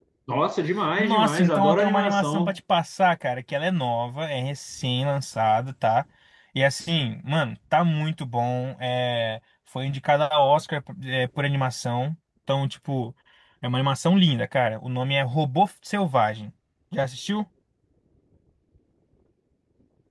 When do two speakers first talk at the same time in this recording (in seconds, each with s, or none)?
1.0 s